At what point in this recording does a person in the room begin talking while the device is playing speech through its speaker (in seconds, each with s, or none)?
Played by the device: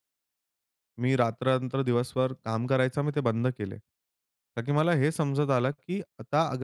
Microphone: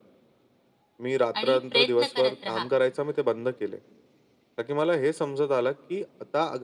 1.4 s